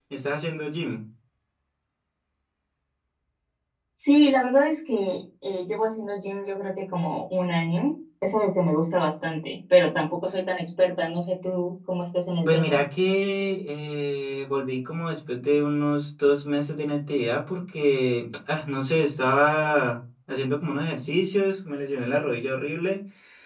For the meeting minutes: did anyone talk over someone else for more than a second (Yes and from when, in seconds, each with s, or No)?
No